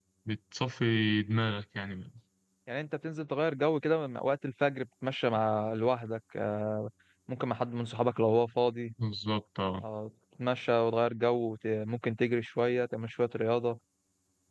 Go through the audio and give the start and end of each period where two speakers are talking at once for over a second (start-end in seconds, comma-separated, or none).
none